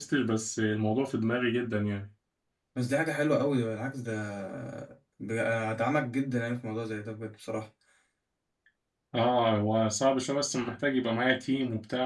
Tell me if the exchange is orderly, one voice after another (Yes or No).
Yes